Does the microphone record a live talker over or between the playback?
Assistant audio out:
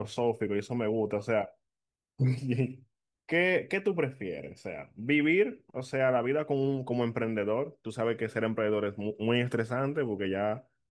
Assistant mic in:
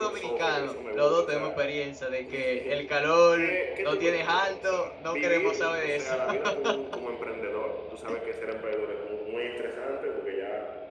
Yes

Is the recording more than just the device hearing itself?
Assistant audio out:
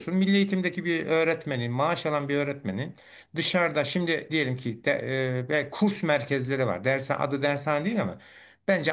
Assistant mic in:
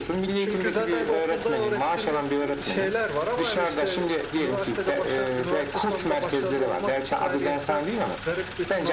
Yes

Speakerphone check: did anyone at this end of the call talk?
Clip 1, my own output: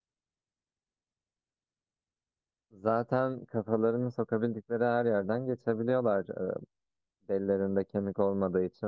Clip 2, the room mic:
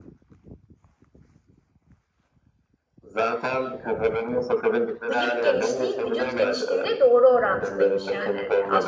Yes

